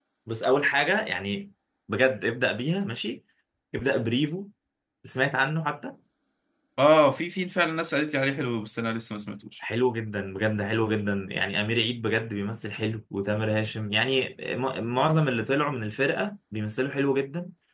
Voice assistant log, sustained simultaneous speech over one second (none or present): none